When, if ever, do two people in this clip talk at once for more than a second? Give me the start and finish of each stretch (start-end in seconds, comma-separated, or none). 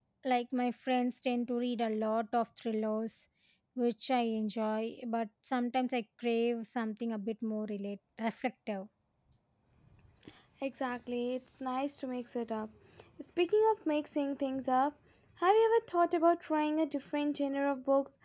none